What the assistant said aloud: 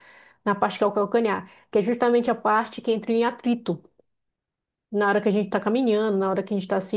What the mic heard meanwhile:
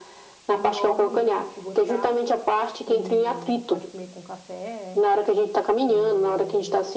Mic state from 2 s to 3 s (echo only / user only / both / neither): both